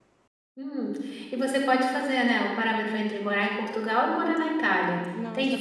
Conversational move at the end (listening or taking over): taking over